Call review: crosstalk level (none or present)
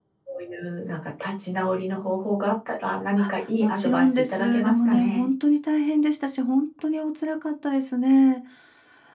present